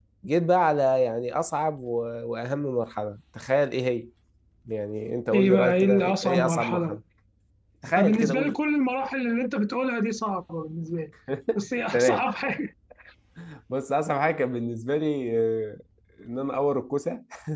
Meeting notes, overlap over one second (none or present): present